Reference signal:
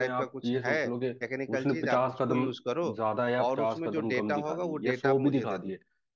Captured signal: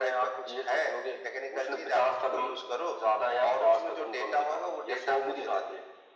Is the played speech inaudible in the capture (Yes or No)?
No